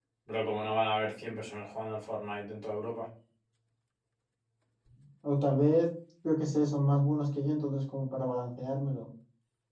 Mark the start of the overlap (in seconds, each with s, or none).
none